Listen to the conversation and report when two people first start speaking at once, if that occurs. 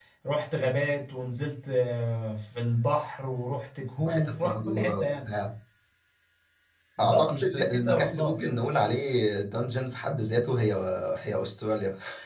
4 s

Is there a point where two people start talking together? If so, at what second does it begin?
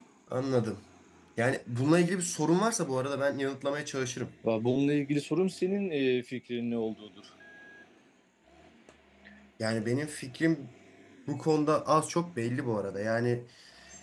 none

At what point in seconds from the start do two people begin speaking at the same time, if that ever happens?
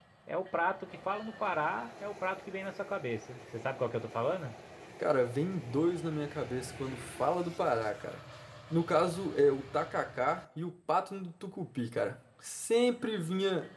none

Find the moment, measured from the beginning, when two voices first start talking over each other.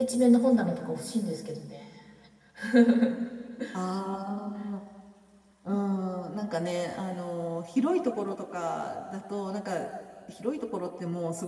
none

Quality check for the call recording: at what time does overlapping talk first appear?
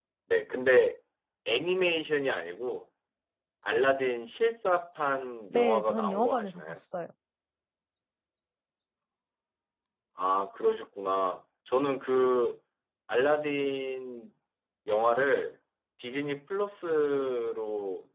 6 s

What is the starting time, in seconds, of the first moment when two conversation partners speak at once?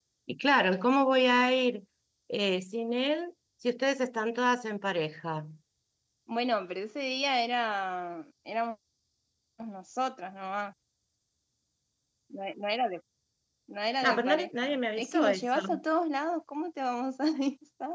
14 s

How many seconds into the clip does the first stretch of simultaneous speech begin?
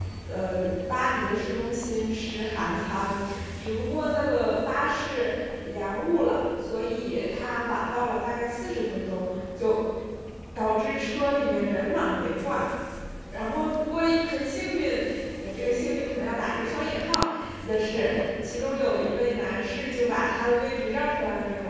none

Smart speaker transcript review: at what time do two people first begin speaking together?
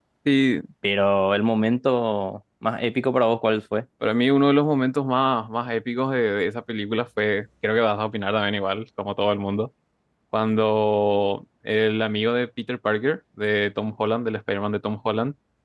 none

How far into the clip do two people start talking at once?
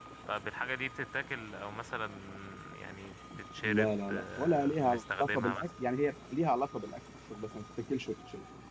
4 s

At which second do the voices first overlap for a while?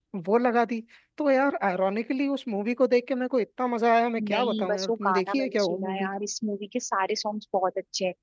4 s

